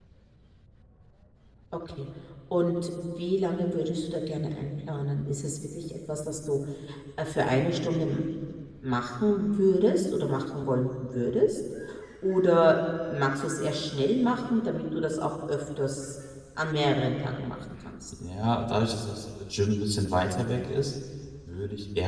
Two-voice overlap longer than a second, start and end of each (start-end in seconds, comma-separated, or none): none